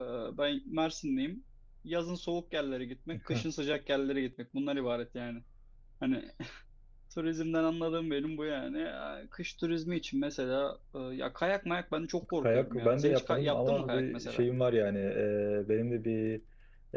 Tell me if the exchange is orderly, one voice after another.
No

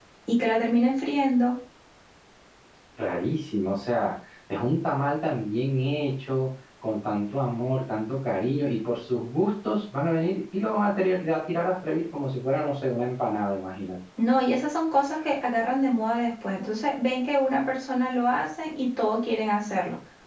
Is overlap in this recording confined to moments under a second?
Yes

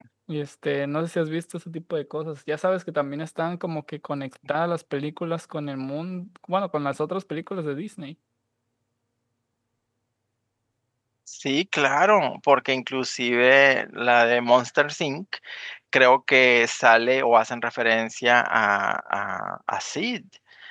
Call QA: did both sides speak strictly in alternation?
Yes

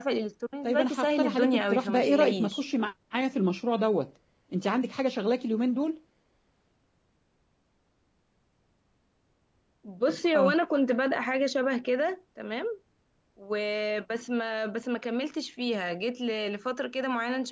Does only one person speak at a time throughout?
No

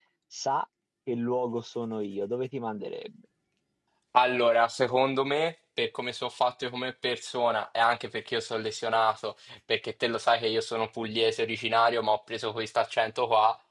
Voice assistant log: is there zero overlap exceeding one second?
Yes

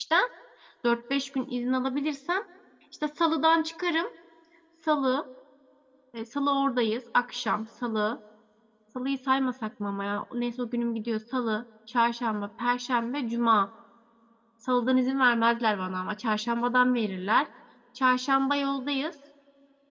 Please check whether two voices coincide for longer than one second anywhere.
No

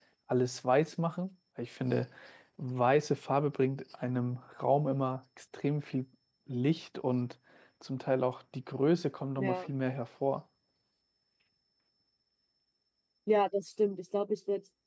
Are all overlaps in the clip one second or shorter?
Yes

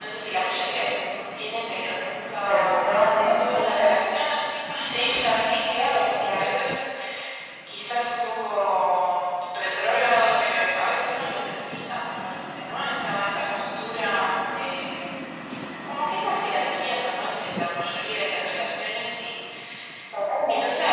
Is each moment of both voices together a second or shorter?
No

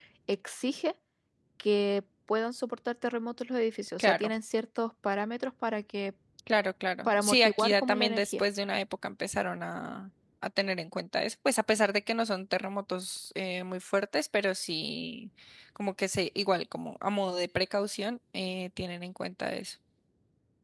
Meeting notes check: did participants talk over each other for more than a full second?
Yes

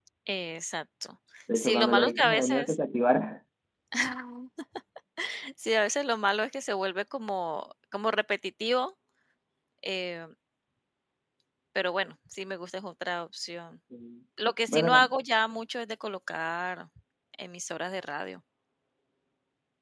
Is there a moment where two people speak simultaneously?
Yes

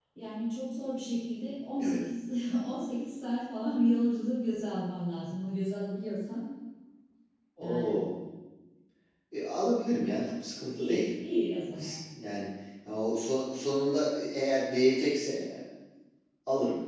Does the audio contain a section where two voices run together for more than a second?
No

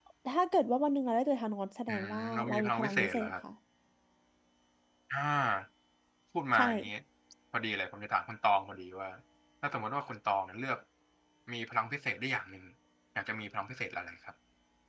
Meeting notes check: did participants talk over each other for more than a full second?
Yes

